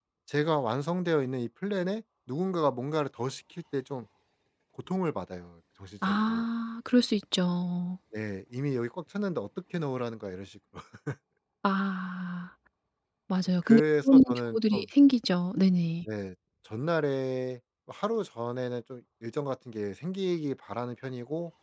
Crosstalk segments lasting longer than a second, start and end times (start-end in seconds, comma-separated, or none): 13.6-14.8